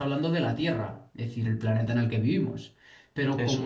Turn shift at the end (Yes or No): No